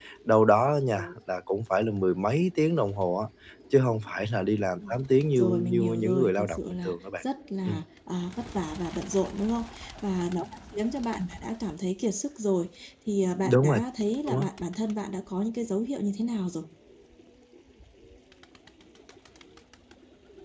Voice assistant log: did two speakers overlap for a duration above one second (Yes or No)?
Yes